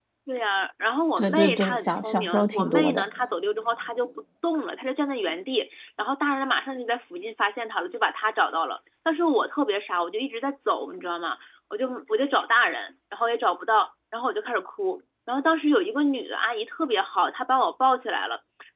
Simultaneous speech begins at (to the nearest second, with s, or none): 1 s